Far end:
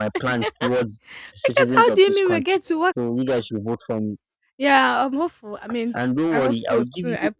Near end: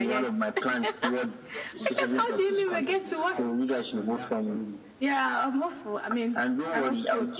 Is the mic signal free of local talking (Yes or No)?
No